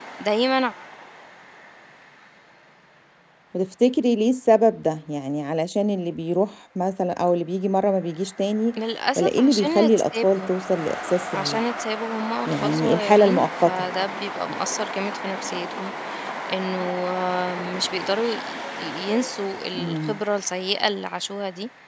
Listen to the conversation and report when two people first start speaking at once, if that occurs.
9 s

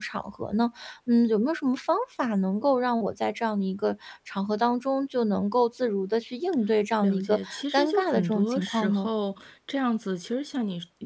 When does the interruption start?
7 s

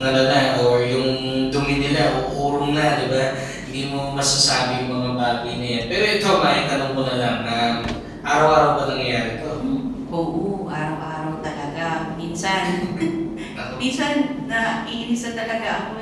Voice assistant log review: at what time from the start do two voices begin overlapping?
none

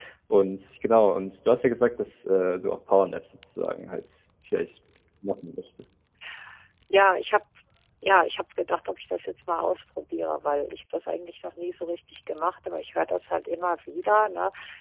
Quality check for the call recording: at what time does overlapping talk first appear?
none

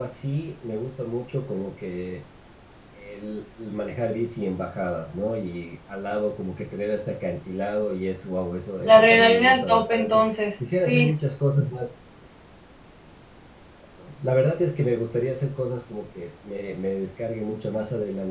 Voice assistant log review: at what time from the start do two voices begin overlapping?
9 s

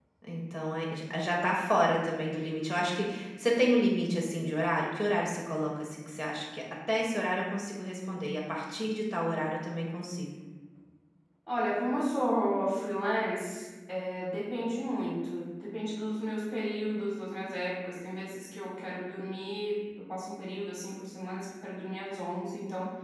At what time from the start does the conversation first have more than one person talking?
none

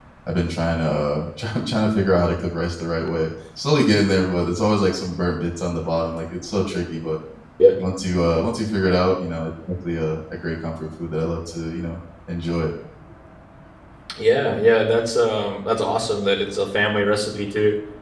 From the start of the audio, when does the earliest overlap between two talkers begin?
none

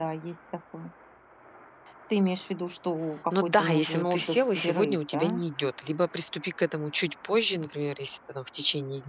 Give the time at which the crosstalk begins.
3 s

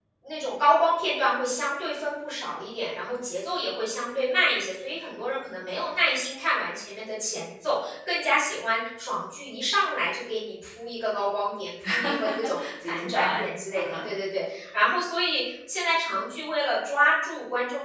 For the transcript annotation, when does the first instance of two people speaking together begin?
12 s

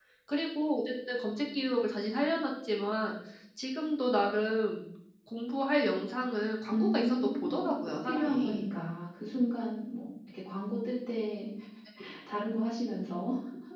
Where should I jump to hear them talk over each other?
7 s

